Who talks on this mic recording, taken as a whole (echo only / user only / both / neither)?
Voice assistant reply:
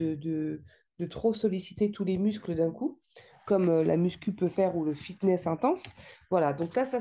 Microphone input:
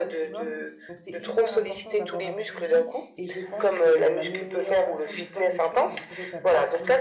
both